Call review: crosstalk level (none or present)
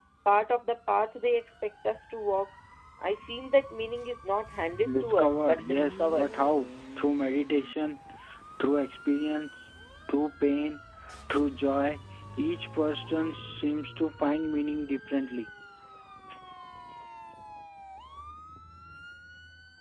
present